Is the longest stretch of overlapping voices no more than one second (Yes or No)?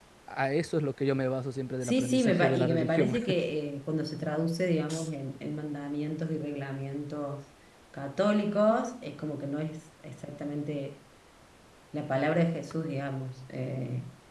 No